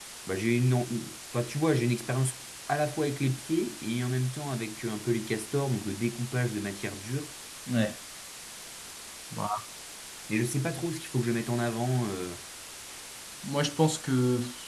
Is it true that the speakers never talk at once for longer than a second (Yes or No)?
Yes